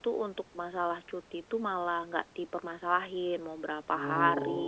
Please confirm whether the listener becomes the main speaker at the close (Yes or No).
No